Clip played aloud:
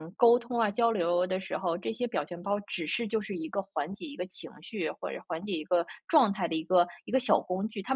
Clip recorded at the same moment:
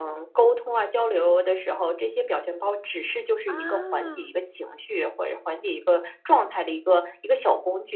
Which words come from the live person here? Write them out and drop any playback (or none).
啊。